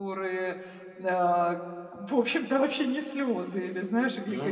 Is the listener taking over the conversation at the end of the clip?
No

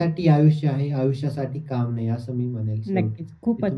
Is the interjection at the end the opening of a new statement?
Yes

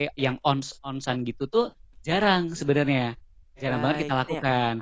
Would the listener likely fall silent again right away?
No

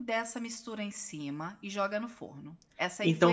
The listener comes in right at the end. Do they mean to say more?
Yes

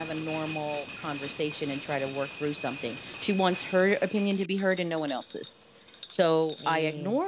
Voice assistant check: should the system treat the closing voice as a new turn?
No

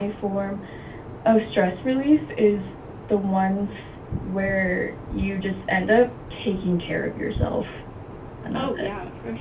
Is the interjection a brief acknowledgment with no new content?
No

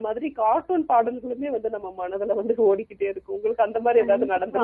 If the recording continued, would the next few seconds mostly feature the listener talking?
Yes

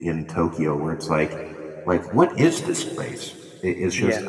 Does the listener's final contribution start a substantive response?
No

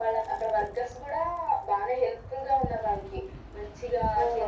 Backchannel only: Yes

